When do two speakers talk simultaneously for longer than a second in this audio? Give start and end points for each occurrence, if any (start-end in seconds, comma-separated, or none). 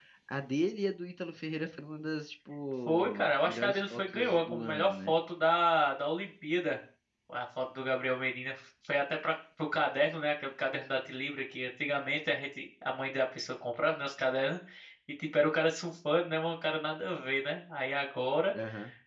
2.9-5.1